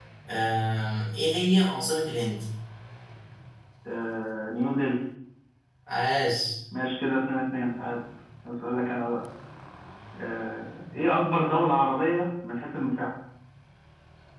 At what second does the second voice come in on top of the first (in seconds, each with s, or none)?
none